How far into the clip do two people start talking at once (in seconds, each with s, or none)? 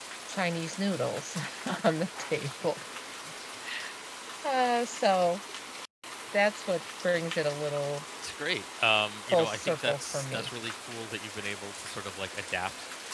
9.3 s